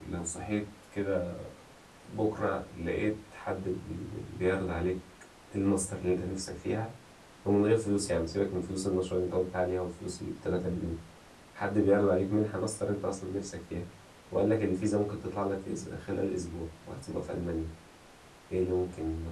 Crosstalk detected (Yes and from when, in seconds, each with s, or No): No